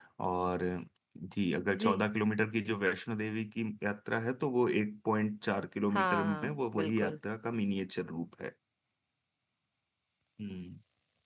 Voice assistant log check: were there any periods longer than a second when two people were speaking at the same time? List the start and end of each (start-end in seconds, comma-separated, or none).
5.9-7.2